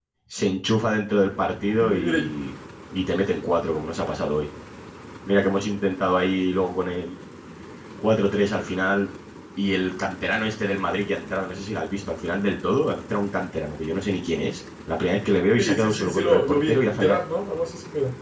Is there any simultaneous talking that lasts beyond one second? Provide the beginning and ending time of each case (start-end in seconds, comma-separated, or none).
15.6-17.2